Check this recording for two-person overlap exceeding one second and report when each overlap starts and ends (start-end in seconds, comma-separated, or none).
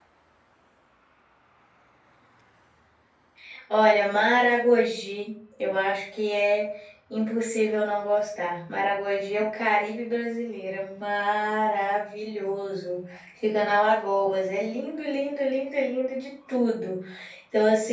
none